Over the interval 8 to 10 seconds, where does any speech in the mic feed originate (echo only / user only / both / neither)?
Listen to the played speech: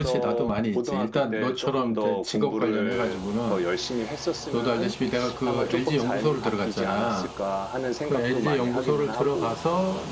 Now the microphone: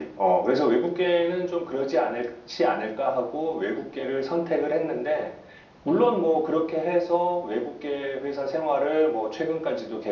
user only